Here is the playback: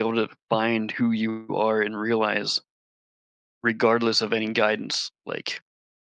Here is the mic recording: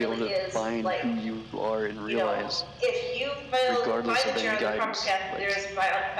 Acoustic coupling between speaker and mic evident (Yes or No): Yes